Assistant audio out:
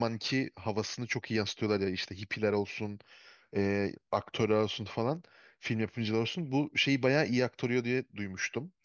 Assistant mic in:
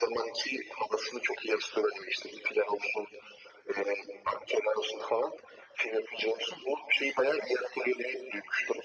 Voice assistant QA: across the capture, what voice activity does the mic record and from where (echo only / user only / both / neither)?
echo only